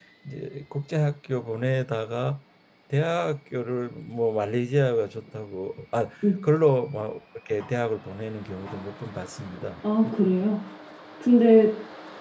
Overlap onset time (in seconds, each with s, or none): none